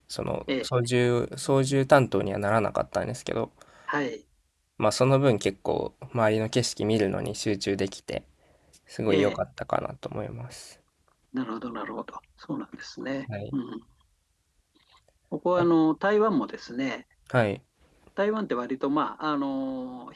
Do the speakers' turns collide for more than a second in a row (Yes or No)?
No